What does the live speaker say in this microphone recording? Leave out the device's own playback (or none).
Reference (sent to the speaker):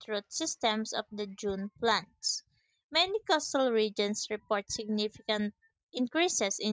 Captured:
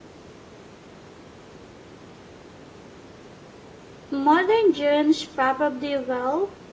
Modern dunes probably will,